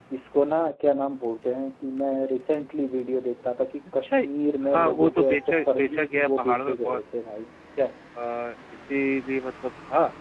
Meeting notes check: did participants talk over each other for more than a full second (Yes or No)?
Yes